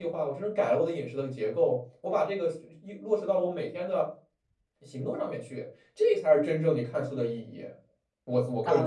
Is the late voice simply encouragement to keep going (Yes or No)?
No